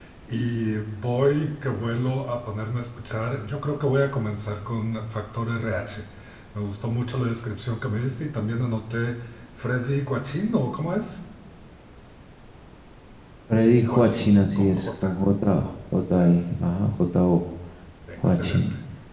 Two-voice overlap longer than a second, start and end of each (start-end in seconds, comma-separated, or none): 13.9-15.1